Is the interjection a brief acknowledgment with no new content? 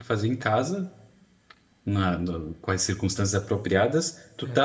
Yes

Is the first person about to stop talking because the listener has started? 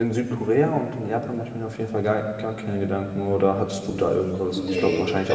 Yes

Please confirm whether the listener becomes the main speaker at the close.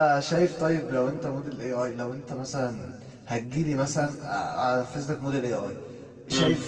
No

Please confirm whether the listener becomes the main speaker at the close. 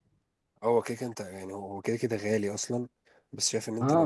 No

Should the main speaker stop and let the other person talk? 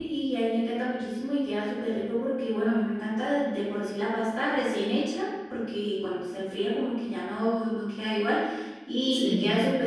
No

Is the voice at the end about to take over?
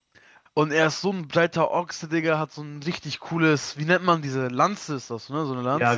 Yes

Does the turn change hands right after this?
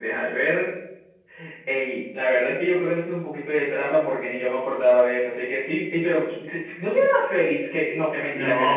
Yes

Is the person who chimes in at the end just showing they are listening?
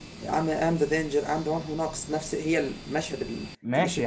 No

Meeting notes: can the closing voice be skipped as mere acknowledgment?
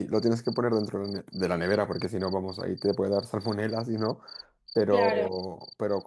Yes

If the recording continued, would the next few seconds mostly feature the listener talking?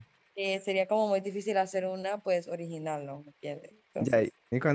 Yes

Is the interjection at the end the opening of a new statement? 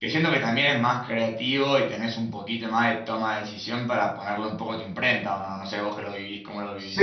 Yes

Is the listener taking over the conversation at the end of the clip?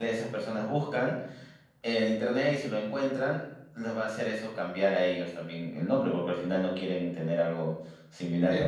No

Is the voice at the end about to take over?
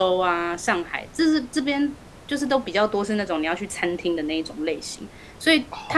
No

